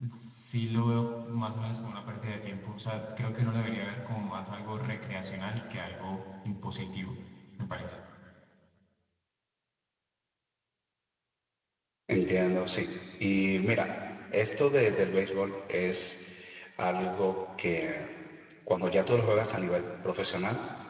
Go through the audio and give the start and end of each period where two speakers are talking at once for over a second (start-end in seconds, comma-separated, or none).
none